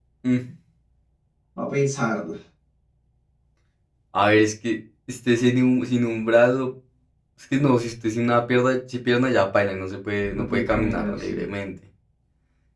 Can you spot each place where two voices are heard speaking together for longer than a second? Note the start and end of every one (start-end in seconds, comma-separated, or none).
10.2-11.4